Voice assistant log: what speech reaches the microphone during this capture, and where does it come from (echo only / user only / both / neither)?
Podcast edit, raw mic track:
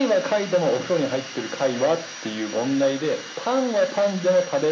echo only